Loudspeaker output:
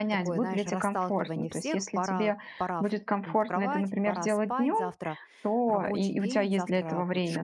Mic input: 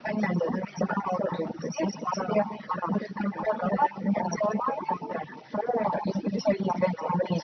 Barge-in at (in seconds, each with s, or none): none